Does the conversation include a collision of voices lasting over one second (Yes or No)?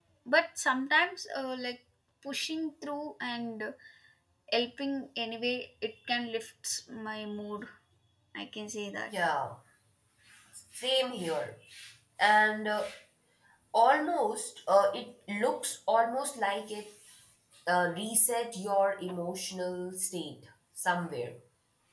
No